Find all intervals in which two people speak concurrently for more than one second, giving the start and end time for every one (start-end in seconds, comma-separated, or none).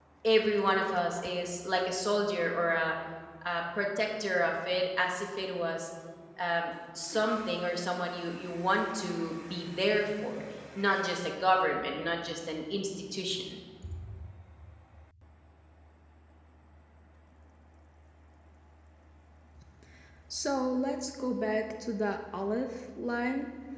none